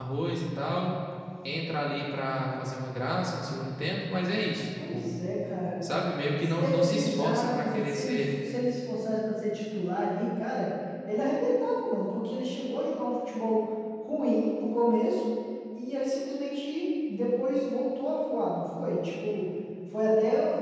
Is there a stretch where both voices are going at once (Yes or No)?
Yes